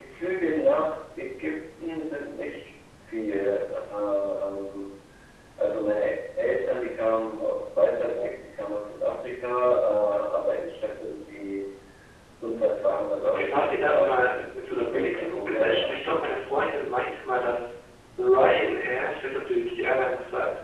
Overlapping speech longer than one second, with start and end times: 13.2-16.0

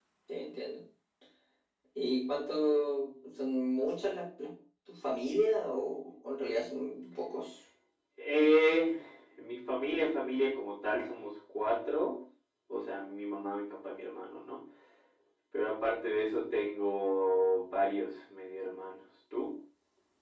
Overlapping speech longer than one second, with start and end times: none

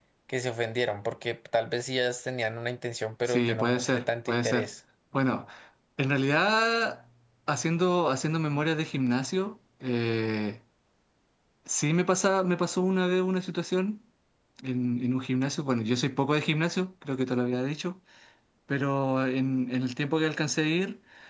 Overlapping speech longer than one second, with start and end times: 3.3-4.7

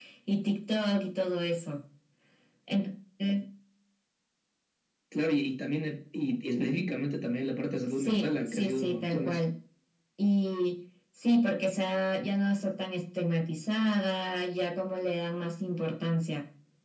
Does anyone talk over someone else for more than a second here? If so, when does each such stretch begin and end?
8.0-9.4

